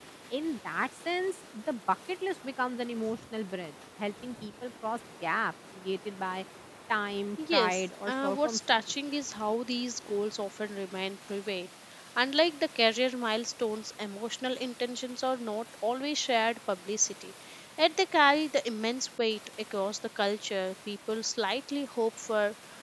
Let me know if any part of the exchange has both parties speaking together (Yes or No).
Yes